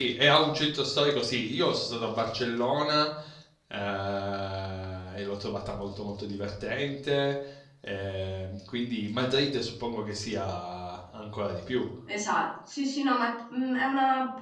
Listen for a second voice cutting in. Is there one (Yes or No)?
No